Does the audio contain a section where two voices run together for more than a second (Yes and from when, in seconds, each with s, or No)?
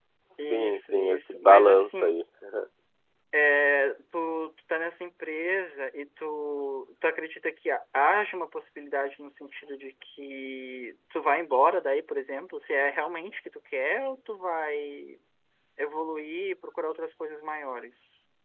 Yes, from 0.5 s